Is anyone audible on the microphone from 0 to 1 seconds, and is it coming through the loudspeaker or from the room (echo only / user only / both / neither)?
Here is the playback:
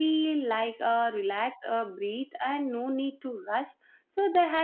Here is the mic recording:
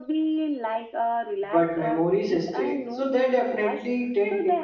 echo only